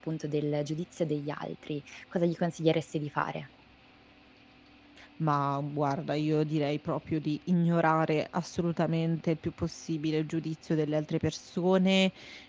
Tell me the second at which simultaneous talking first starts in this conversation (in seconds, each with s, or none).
none